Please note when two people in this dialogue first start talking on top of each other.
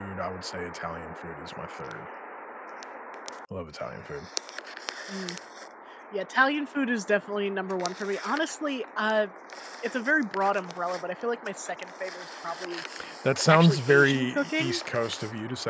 13.5 s

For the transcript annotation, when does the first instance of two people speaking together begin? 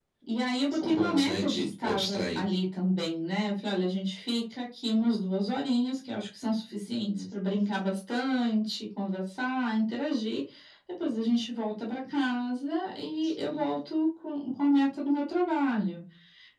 0.7 s

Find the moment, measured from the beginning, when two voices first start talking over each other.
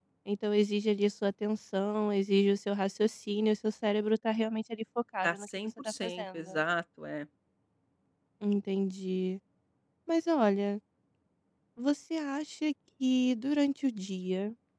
5.2 s

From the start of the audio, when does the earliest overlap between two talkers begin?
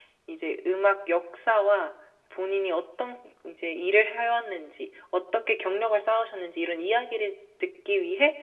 none

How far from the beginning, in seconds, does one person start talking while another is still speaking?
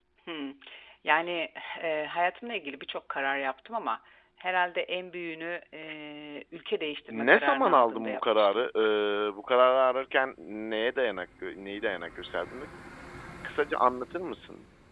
7.1 s

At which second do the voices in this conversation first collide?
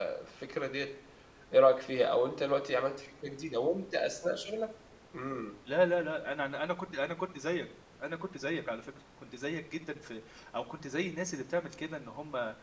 none

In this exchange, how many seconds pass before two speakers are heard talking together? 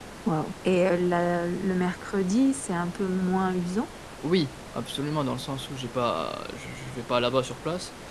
none

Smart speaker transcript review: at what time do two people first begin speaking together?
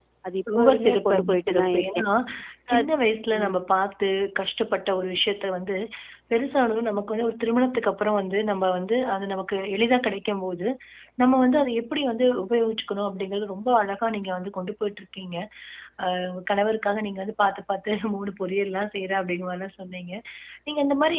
0.6 s

